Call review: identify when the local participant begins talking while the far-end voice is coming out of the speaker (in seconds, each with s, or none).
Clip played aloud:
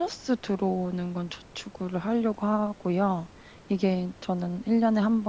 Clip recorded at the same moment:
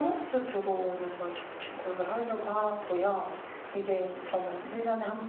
none